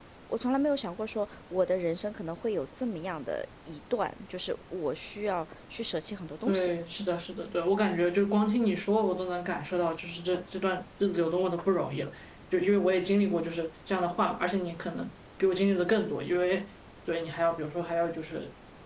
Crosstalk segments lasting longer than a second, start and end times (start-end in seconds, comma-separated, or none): none